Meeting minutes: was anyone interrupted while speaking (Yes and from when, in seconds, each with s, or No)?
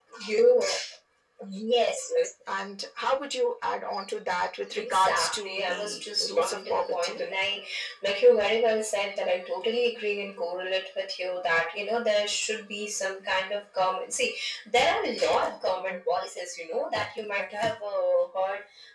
Yes, from 4.8 s